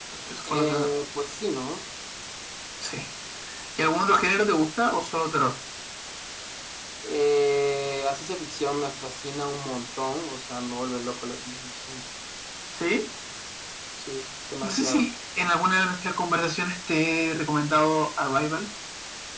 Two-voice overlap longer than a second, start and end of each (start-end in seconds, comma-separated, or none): none